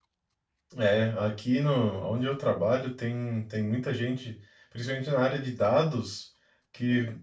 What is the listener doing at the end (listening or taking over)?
listening